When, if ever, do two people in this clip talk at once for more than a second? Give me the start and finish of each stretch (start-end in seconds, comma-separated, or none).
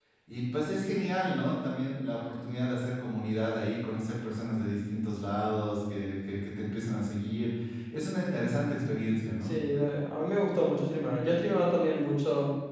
none